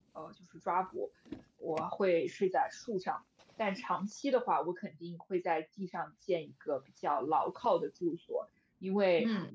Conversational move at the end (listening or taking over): listening